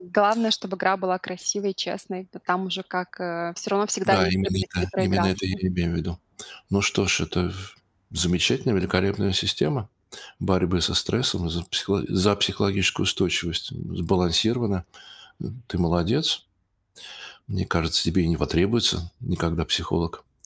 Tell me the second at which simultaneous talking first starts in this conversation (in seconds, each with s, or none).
4.1 s